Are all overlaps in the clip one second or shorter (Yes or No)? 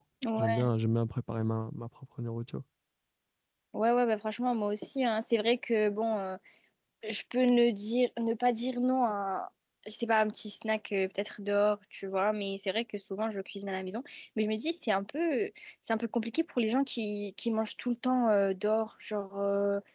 Yes